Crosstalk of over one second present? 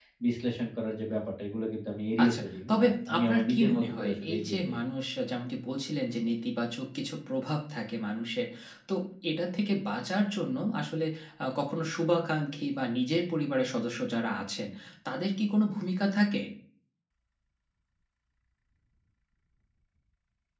Yes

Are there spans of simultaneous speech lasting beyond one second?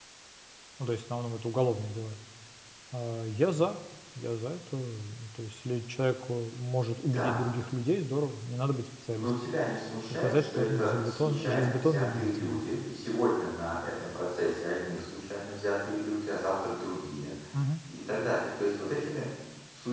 Yes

